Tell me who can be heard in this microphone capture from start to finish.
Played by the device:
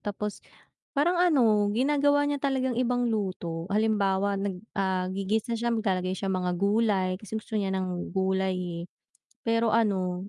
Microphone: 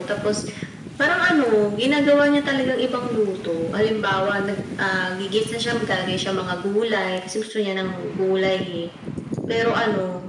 echo only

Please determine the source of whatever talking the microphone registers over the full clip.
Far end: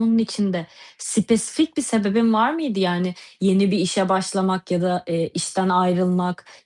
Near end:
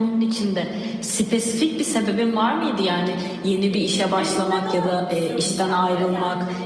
both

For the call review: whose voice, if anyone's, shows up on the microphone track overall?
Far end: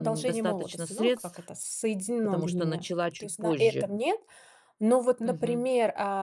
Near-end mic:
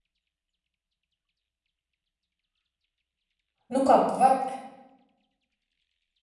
user only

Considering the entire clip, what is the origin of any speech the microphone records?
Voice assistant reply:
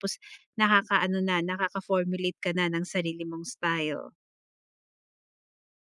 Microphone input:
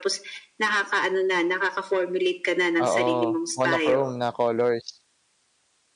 both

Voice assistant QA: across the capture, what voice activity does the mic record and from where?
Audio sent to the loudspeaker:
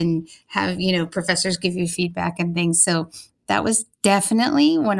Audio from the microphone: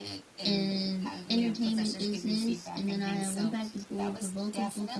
both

